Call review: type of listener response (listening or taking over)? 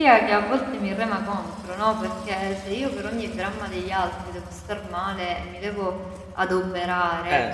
listening